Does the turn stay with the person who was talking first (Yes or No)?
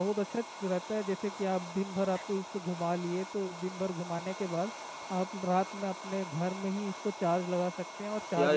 No